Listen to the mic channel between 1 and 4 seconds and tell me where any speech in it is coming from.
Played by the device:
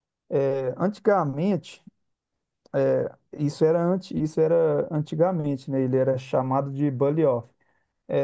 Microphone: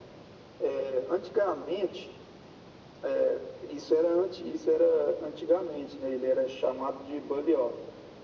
echo only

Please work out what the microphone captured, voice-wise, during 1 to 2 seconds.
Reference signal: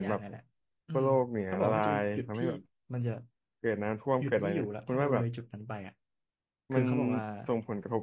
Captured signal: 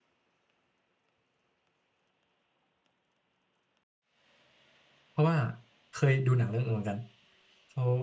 neither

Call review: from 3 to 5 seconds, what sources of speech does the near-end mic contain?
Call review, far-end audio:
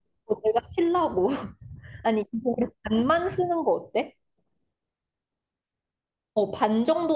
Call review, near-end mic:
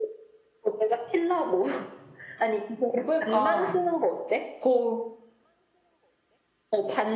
both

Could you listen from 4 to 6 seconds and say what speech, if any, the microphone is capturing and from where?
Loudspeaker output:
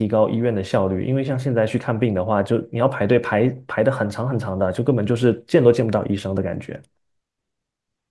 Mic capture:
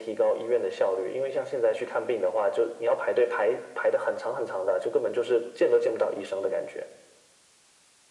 echo only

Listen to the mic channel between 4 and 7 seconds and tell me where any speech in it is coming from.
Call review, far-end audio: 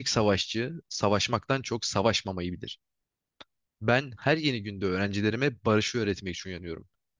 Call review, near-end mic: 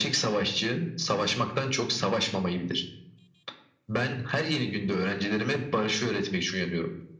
echo only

